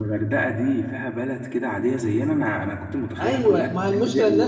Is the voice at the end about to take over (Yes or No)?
Yes